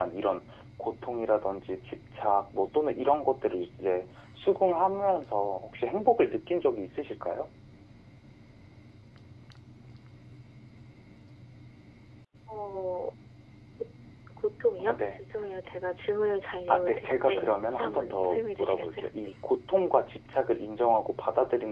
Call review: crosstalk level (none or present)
present